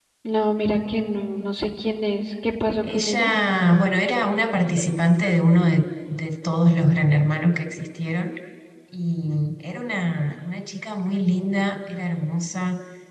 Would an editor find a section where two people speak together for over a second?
No

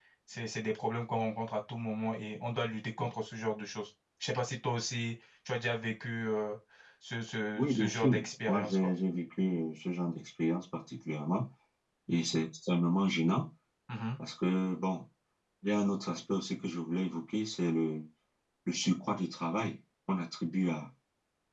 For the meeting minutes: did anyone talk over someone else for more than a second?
Yes, from 7.6 s

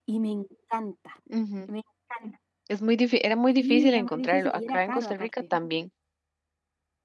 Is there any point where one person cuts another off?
Yes, from 3.6 s

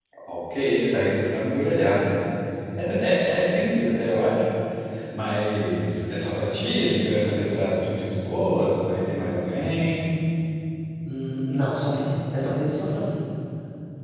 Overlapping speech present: No

